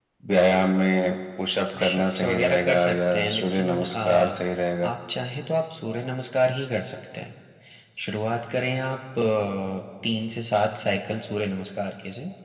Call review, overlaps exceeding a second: present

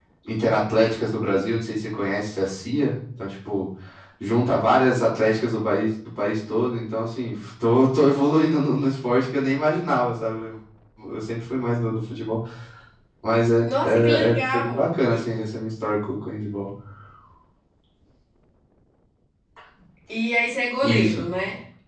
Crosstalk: present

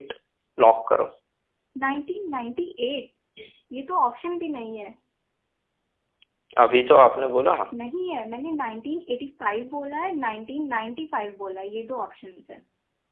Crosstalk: none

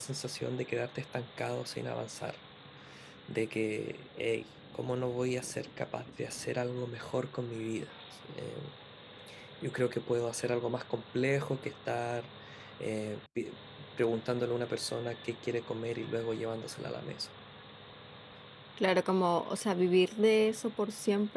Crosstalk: none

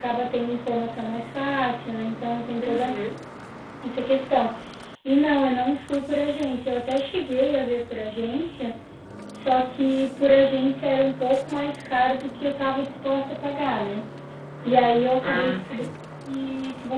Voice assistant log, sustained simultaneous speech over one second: present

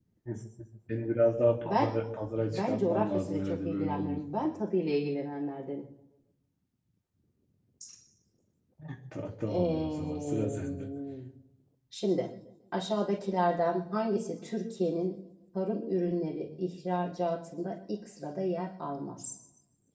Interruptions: present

